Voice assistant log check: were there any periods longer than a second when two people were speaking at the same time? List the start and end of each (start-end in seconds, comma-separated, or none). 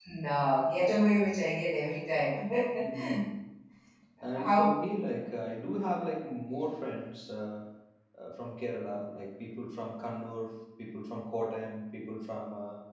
none